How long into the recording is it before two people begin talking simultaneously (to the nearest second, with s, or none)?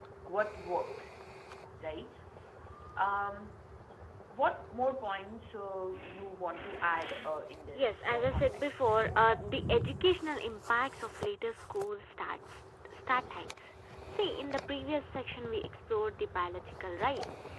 8 s